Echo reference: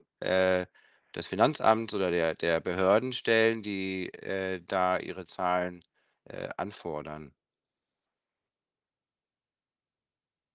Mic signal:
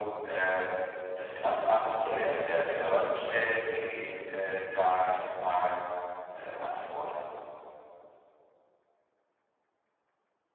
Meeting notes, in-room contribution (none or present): none